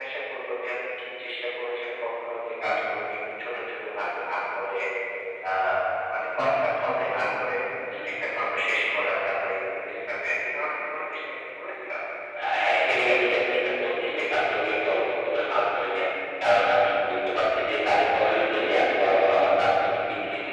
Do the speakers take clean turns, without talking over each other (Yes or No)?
Yes